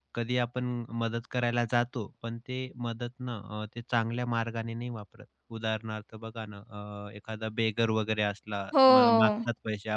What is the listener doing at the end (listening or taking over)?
listening